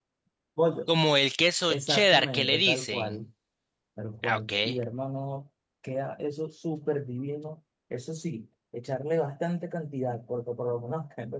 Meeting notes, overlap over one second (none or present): present